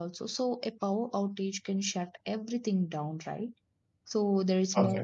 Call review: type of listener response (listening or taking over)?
listening